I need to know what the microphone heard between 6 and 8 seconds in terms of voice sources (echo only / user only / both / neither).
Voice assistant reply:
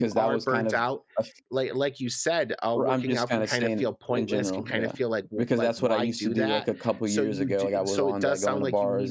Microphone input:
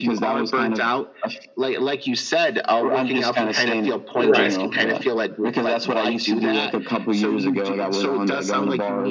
echo only